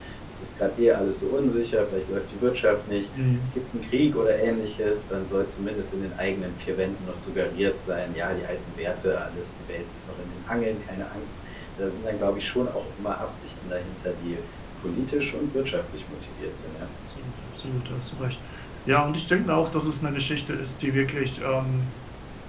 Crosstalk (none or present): none